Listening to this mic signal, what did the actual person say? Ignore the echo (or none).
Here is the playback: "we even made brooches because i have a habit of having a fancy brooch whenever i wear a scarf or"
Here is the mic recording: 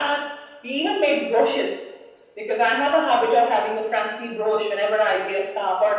none